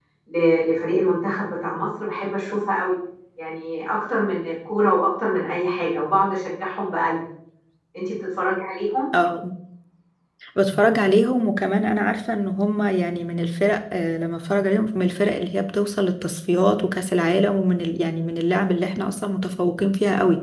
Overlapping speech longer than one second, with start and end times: none

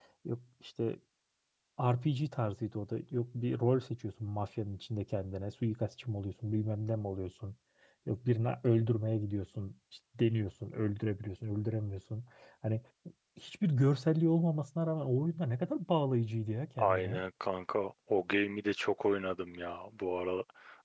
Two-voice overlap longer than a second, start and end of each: none

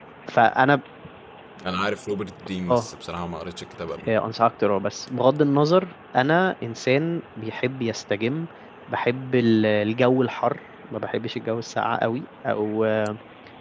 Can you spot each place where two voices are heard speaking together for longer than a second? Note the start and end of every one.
none

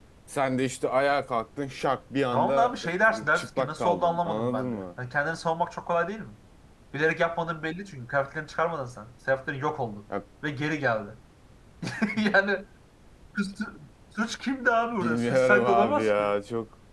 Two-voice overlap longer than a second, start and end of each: 2.3-4.8, 15.0-16.2

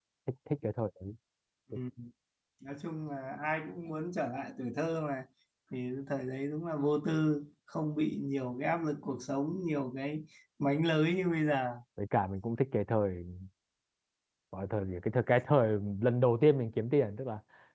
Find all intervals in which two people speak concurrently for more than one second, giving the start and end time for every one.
none

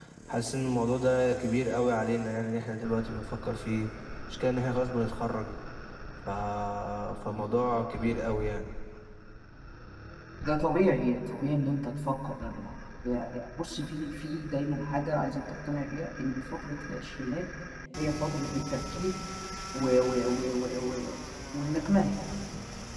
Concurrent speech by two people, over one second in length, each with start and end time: none

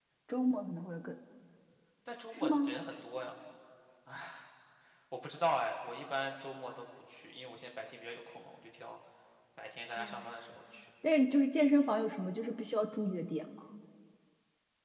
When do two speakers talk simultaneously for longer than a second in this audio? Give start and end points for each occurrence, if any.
none

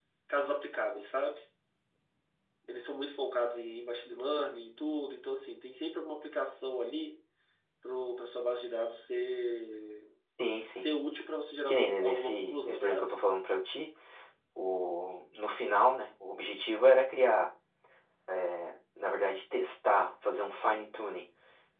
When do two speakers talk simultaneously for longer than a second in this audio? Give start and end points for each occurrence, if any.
11.7-13.1

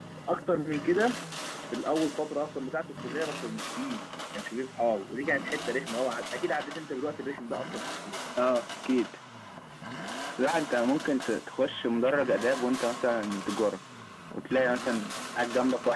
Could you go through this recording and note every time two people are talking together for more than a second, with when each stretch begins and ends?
none

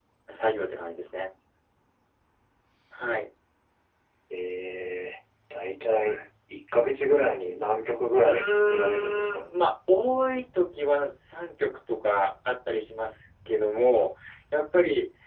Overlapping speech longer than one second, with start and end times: 8.2-9.4

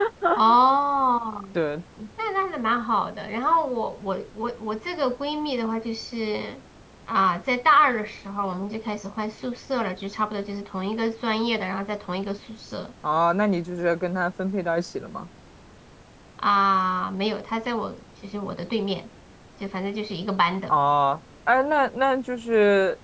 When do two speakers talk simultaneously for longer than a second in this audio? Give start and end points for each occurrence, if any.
none

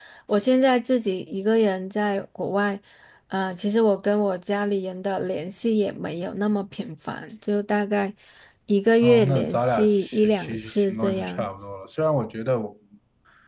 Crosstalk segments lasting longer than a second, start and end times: 9.0-11.5

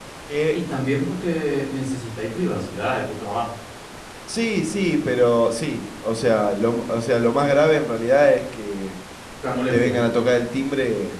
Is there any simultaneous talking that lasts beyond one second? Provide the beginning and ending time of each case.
none

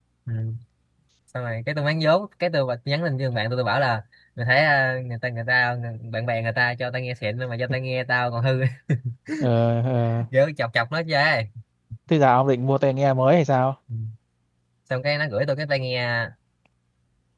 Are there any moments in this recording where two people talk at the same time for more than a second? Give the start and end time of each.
none

